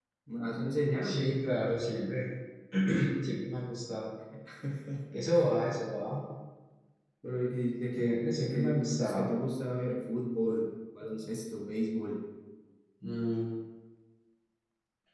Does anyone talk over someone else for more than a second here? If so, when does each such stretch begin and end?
8.0-9.3

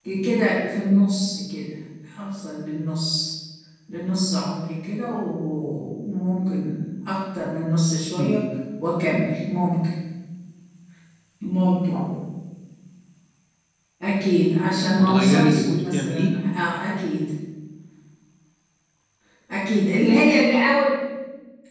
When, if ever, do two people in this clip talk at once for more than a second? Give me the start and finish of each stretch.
14.9-16.3

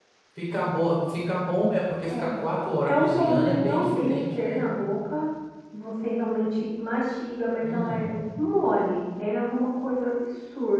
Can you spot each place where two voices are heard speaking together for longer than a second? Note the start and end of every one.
2.9-4.7

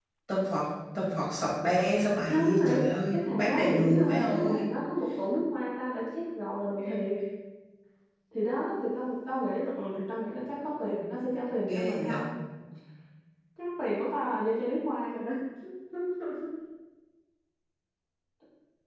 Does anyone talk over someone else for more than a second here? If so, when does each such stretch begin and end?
2.3-4.7

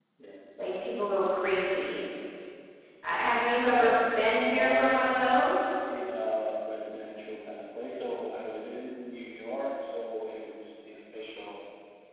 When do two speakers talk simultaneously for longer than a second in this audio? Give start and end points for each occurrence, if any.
3.2-4.9

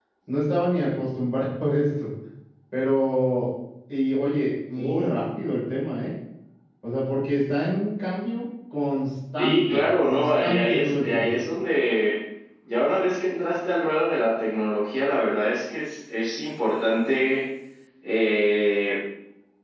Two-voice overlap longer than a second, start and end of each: 9.4-11.3

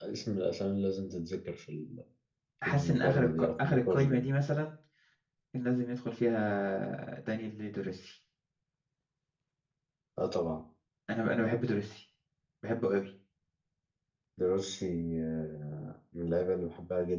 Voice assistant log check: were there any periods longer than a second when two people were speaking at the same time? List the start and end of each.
2.6-4.2

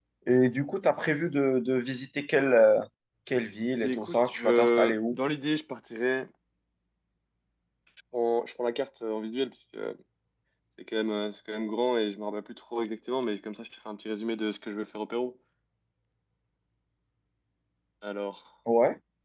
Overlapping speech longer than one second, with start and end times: 3.8-5.2

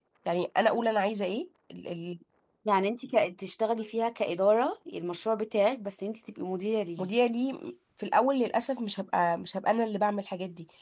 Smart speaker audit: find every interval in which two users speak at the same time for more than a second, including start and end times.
none

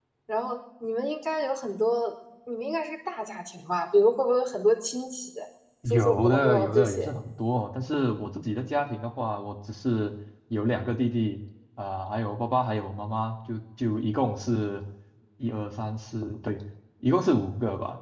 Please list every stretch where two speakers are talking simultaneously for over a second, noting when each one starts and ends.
5.9-7.1

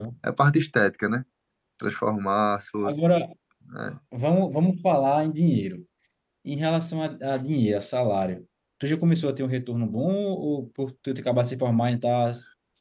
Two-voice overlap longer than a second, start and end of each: none

